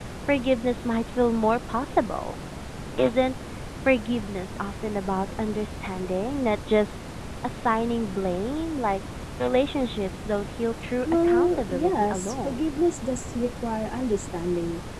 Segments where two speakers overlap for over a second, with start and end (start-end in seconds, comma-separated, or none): 11.1-12.6